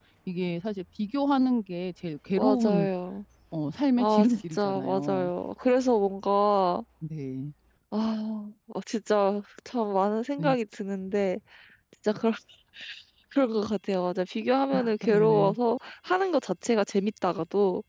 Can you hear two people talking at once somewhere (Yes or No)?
Yes